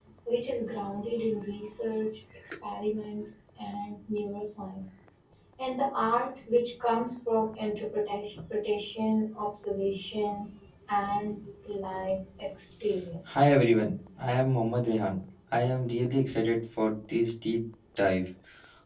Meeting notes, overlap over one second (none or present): none